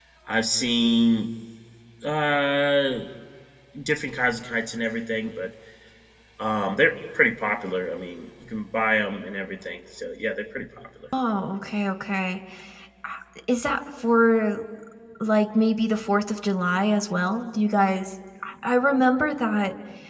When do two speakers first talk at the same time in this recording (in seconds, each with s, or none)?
none